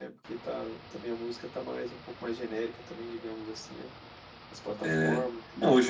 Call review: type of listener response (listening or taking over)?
taking over